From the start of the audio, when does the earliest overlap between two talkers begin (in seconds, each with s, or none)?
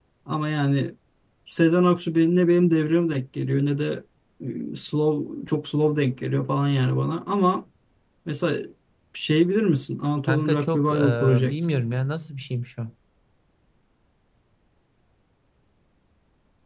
10.3 s